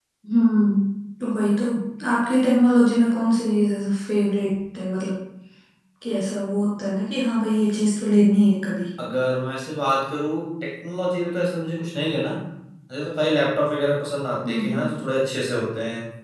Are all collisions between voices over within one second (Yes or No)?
Yes